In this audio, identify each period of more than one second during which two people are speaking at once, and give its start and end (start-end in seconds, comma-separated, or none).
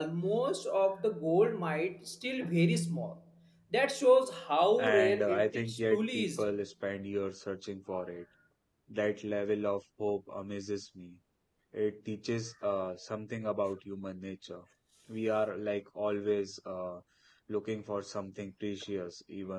4.8-6.4